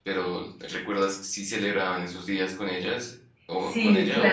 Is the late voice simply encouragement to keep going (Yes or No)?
No